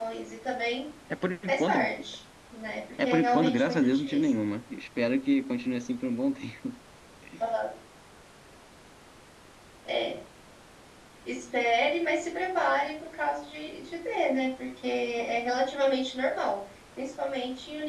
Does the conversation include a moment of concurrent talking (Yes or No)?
Yes